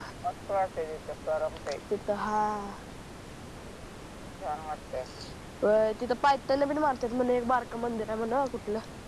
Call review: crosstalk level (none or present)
none